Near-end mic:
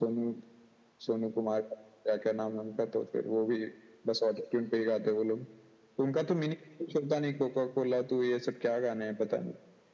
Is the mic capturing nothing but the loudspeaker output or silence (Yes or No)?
Yes